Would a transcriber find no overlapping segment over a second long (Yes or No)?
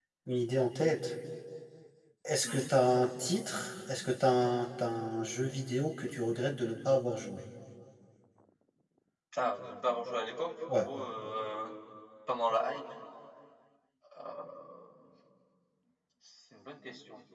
Yes